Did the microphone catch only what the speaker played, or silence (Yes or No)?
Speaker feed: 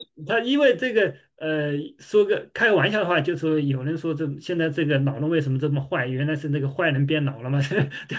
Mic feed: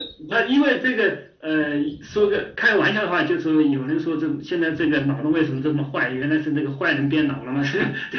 Yes